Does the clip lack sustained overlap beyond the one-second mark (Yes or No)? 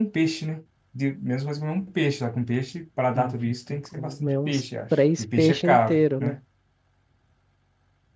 No